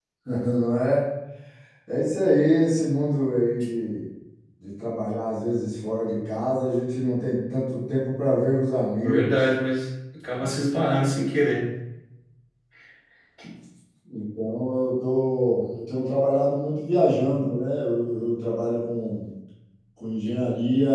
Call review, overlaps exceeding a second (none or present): none